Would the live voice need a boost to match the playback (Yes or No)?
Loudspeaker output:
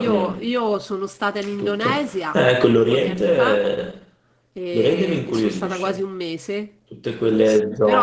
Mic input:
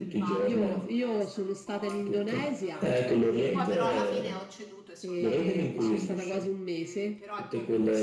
Yes